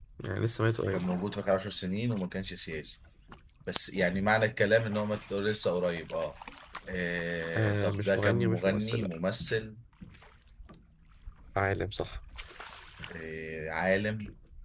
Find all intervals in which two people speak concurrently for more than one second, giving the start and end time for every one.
7.6-9.1

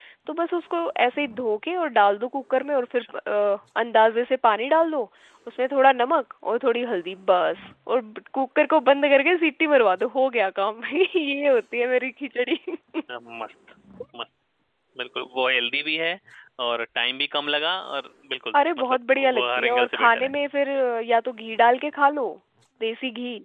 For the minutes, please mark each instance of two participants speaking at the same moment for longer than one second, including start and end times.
18.8-20.3

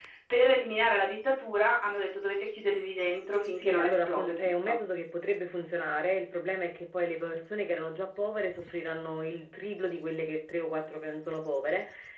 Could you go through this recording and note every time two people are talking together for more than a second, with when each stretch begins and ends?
3.6-4.8

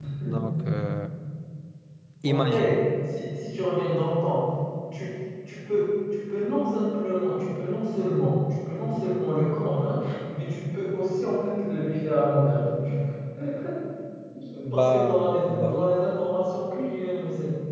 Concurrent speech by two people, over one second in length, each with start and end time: 14.6-15.9

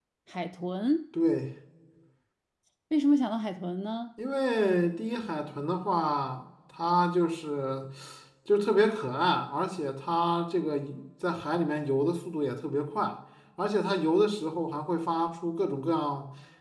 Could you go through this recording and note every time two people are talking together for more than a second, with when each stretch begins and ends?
none

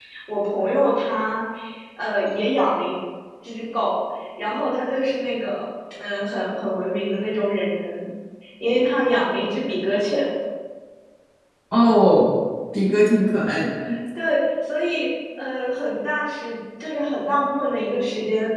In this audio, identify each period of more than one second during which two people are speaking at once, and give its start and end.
none

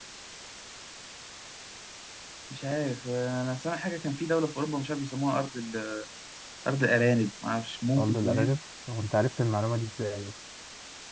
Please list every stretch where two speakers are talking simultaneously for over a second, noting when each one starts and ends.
none

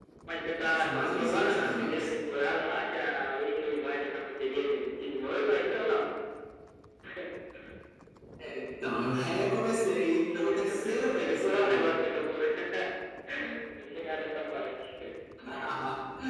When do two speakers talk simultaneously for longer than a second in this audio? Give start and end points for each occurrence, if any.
0.6-2.1, 10.3-11.9

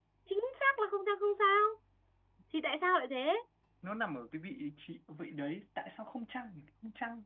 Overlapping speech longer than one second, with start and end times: none

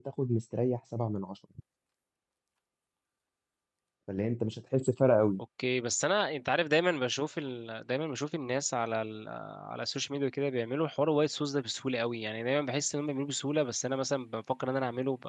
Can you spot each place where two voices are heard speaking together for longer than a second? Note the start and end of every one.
none

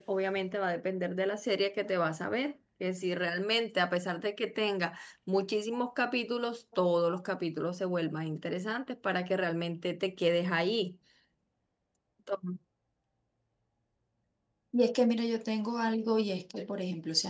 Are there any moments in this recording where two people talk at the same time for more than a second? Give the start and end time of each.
none

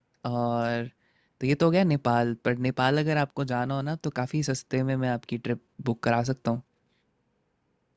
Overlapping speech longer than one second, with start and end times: none

